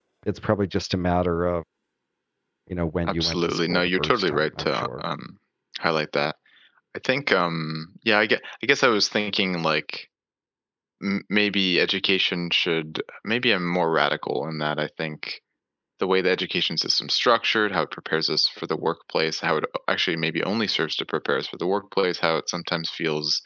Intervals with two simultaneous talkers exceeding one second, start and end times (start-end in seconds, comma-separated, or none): 3.1-5.0